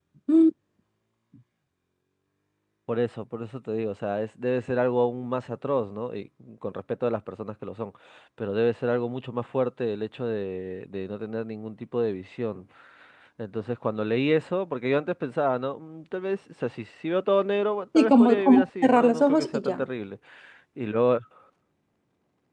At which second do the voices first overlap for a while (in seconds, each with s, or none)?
17.9 s